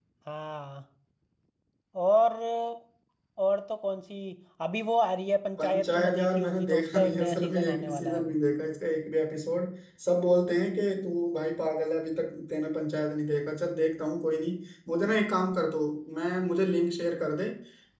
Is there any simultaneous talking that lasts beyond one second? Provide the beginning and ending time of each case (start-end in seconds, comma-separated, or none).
5.6-8.3